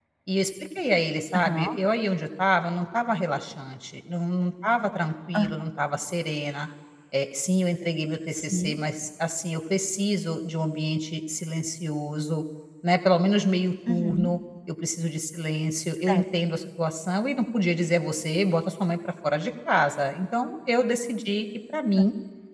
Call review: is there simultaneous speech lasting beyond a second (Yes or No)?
No